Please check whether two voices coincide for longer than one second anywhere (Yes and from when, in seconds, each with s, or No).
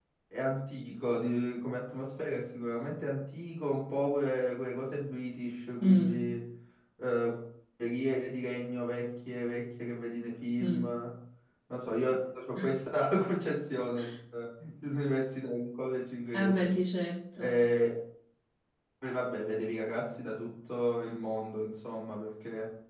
No